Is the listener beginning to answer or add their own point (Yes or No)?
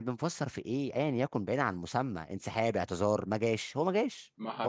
Yes